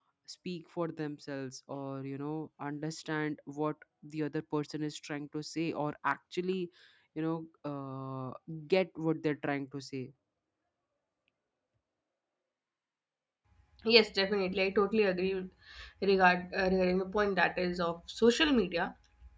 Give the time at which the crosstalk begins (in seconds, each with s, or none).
none